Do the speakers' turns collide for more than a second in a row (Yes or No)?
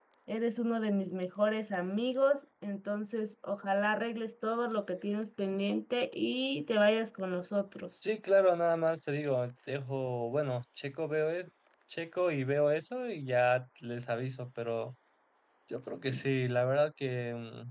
No